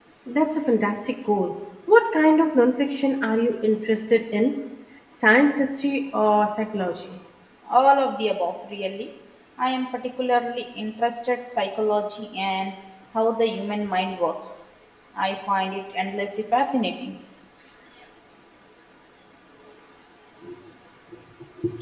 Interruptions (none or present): none